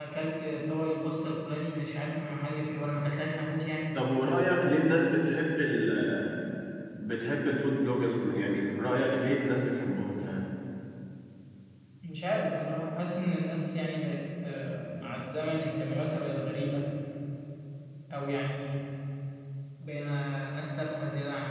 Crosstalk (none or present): none